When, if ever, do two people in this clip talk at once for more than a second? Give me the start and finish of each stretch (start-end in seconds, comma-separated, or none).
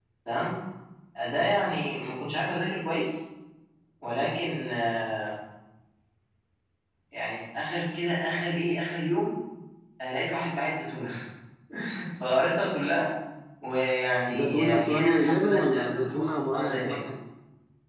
14.3-17.0